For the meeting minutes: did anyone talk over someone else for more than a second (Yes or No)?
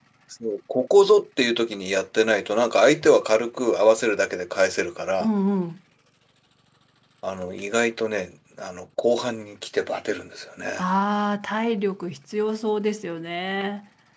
No